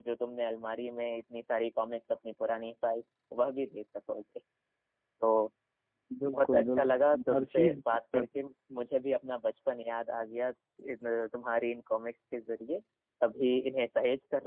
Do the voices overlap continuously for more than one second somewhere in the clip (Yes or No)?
Yes